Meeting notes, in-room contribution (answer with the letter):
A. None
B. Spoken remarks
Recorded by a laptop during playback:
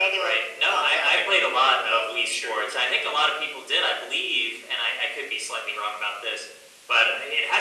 A